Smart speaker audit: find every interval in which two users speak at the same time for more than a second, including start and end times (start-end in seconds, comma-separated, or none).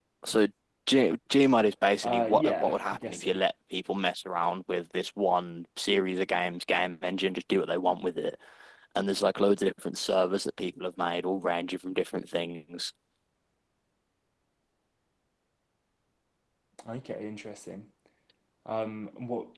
2.0-3.4